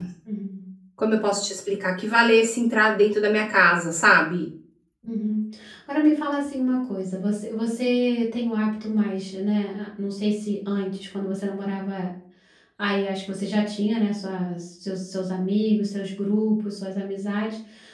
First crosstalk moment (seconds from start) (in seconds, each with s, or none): none